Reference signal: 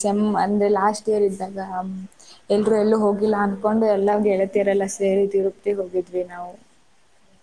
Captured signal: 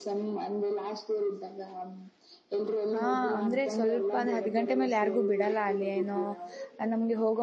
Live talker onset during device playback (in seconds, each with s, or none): 2.9 s